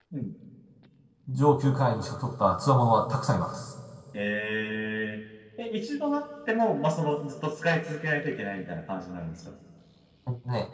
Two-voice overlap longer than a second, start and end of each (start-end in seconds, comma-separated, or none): none